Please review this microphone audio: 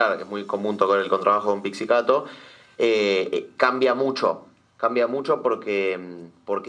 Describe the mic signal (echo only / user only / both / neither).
echo only